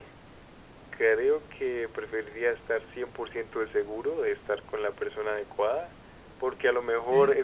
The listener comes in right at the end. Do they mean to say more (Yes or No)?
No